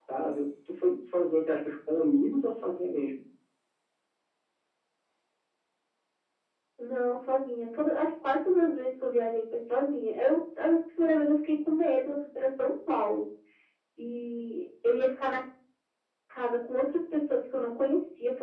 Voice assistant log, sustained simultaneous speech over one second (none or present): none